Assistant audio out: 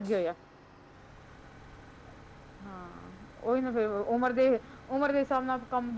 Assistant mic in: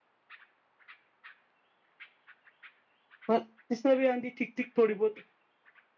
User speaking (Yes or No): Yes